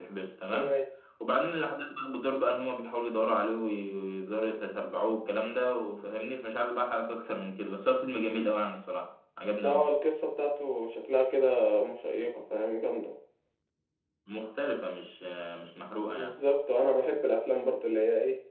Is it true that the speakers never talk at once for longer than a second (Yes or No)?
Yes